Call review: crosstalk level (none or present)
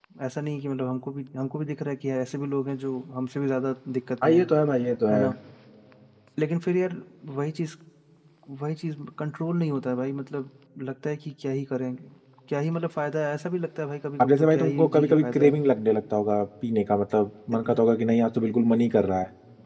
present